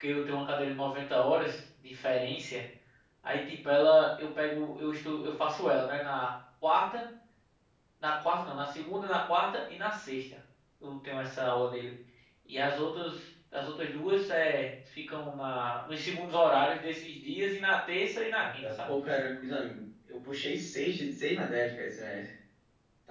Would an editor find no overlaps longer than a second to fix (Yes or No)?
Yes